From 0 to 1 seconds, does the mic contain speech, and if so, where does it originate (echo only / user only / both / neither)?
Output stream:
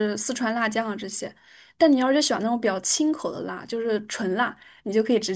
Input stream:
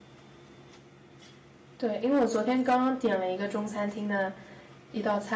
neither